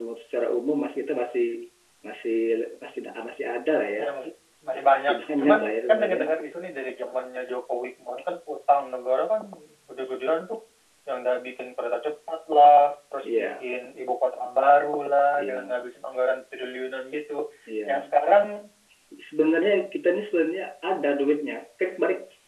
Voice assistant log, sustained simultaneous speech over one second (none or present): present